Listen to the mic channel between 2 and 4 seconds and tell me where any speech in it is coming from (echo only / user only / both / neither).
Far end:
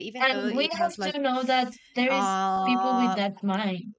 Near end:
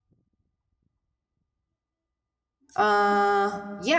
user only